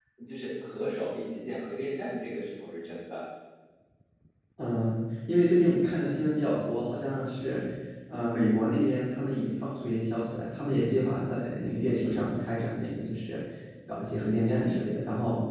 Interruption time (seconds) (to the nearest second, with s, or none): none